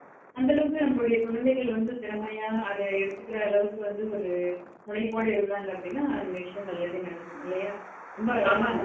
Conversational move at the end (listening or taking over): listening